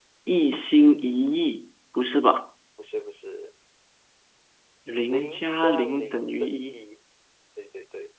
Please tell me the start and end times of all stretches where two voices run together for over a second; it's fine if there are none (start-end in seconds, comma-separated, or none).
5.0-6.8